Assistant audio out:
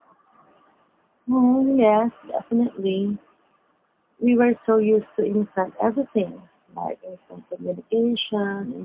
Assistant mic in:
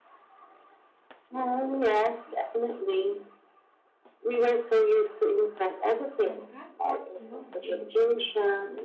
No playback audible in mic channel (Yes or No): No